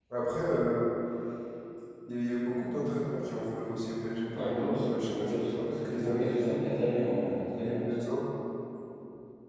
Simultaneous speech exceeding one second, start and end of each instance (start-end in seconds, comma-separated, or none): 4.3-6.9